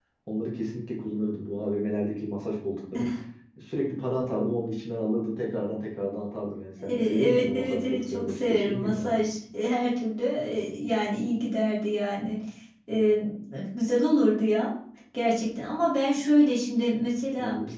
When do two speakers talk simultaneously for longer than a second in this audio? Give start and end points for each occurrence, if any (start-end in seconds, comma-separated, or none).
6.8-9.2